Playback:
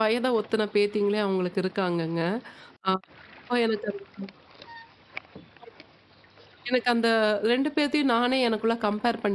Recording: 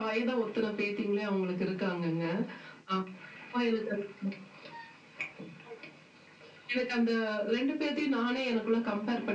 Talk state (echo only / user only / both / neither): echo only